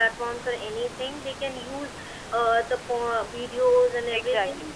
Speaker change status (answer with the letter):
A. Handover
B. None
B